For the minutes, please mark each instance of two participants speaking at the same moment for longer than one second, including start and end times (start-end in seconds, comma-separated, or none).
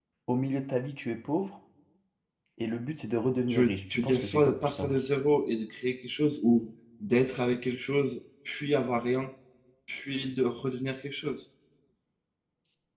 3.5-5.0